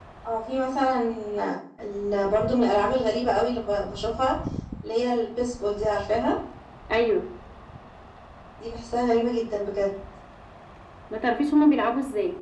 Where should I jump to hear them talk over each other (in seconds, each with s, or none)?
none